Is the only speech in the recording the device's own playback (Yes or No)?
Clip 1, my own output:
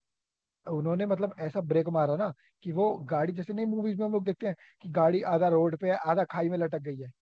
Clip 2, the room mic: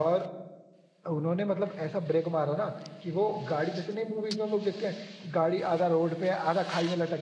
Yes